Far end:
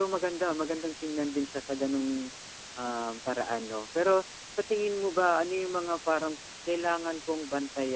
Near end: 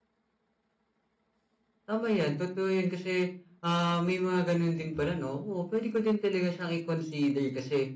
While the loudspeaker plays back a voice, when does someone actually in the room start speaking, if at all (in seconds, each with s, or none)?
1.8 s